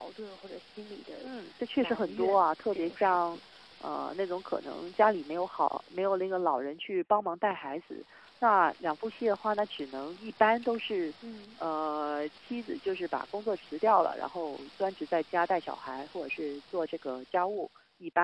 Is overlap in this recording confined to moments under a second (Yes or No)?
No